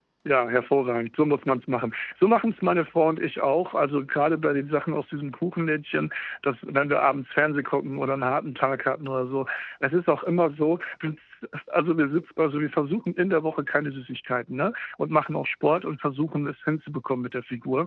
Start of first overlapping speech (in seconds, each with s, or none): none